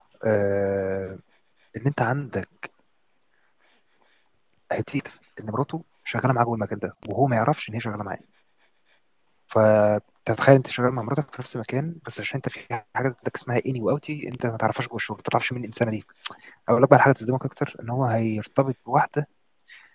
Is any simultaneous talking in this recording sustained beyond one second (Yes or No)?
No